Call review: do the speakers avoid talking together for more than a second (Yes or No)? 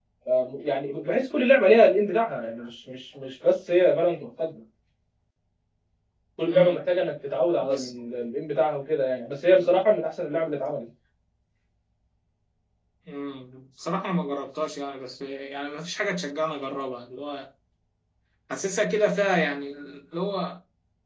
Yes